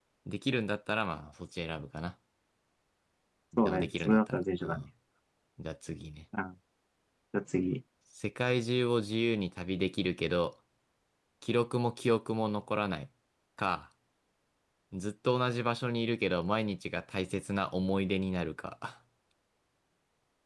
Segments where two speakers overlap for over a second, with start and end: 3.6-4.8

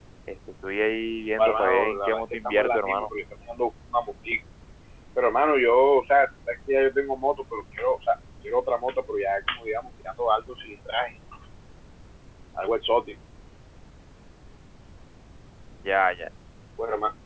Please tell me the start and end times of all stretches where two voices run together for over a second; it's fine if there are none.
1.4-3.1

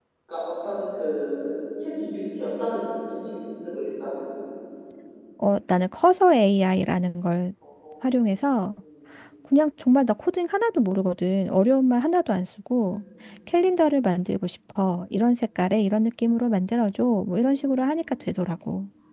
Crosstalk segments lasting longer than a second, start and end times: none

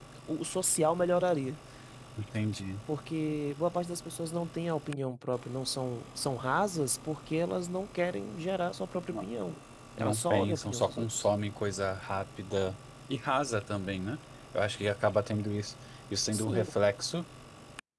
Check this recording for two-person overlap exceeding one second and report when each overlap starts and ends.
10.0-11.3

